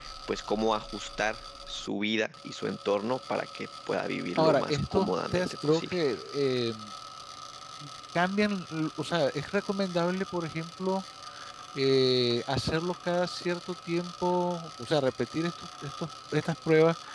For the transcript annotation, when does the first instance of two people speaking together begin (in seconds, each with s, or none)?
4.4 s